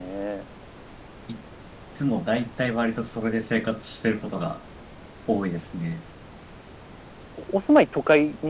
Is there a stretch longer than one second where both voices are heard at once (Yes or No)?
No